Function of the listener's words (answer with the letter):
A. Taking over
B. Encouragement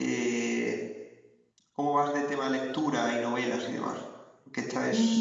A